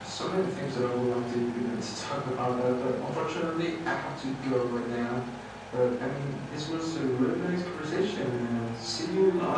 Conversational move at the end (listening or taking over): taking over